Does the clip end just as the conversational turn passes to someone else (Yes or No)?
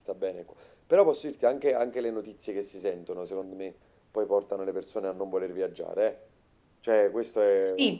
Yes